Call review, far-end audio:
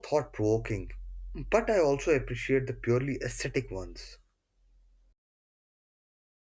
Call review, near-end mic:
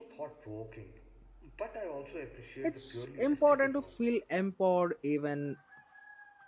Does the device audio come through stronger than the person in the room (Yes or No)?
No